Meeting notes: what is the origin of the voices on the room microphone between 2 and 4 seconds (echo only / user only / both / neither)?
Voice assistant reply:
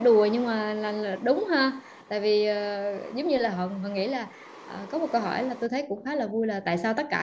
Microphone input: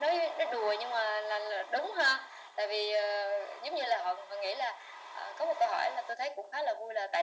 echo only